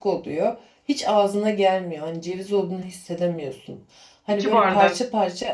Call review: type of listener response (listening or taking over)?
listening